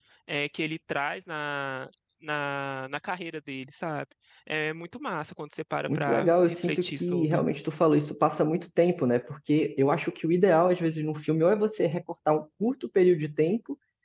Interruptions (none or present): present